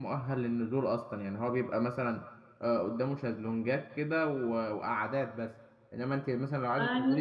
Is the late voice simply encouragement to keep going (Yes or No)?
Yes